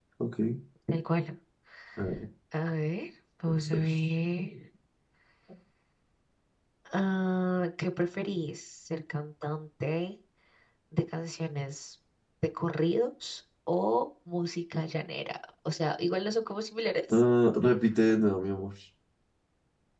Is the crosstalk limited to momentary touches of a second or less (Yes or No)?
Yes